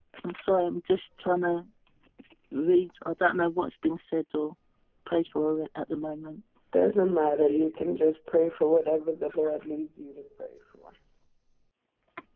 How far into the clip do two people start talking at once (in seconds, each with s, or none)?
none